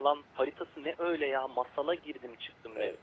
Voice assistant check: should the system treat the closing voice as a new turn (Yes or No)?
Yes